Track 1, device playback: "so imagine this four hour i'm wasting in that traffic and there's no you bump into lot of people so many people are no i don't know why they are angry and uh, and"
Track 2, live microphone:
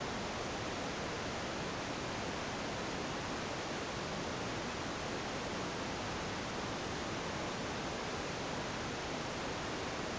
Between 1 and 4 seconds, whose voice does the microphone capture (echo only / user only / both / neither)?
neither